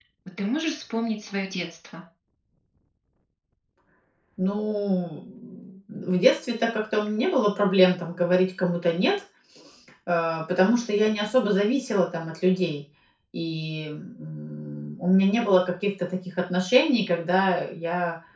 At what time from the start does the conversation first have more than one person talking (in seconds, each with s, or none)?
none